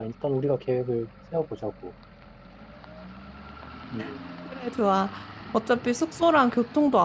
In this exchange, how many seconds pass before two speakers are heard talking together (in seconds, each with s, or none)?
none